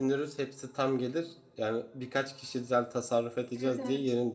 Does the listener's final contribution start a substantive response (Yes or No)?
No